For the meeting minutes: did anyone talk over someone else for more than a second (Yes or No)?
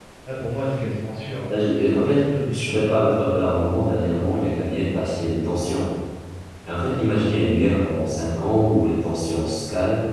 Yes